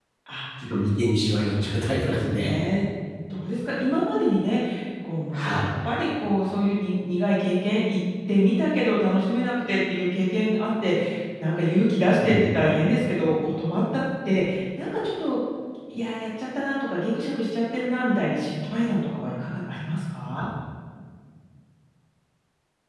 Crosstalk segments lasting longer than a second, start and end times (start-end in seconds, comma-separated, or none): 1.2-2.6